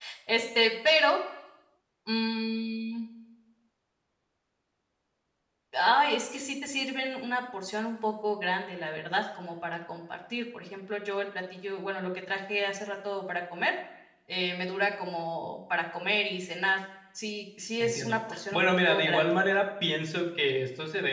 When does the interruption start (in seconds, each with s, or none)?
17.8 s